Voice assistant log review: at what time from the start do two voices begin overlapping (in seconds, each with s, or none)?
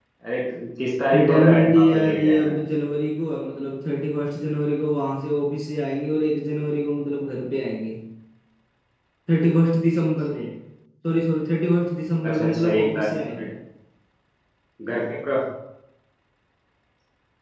1.1 s